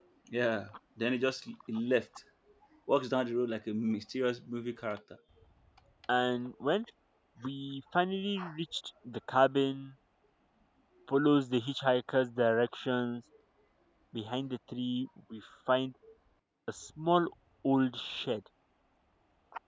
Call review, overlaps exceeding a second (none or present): none